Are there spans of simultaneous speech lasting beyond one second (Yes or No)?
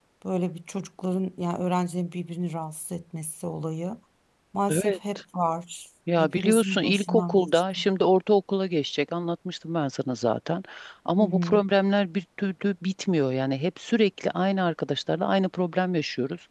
Yes